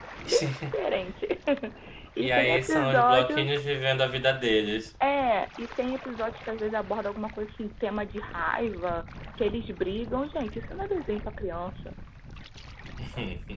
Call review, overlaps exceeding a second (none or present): present